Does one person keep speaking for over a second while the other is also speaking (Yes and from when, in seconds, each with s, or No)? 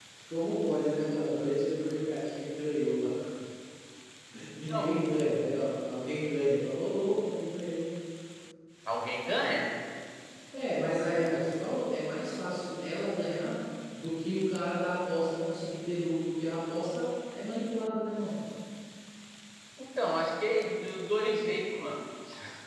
No